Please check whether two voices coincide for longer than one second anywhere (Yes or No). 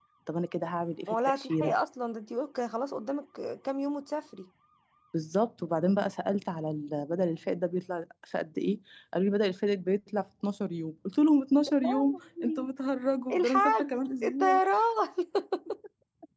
Yes